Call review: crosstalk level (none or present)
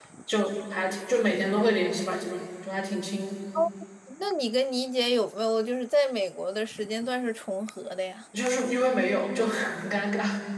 none